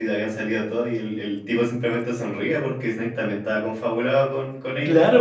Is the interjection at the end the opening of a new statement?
Yes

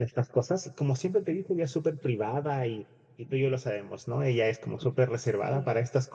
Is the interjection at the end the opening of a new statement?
No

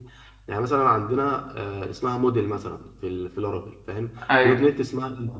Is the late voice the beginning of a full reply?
No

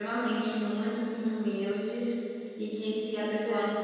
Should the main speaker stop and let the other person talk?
No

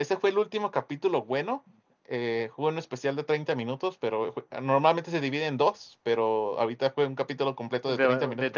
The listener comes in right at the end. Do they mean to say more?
Yes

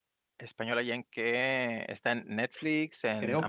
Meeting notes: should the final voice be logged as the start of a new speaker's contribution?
Yes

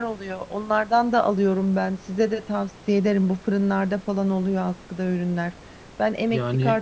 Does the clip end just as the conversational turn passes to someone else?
No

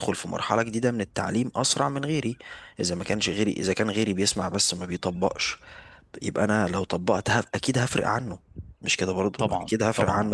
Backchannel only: No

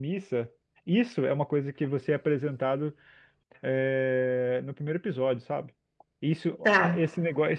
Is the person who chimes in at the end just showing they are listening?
Yes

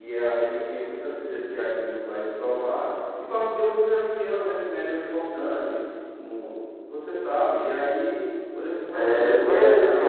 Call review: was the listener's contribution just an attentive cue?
No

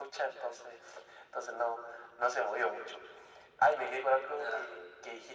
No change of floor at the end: Yes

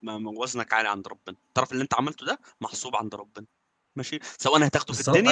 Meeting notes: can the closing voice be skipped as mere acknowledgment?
No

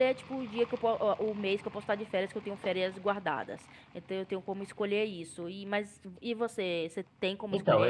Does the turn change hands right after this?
Yes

